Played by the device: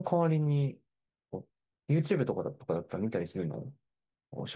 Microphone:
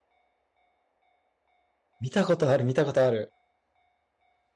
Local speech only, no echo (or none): 見たことある、見たことある。